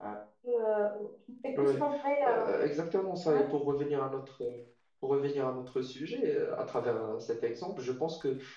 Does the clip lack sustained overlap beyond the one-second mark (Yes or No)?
Yes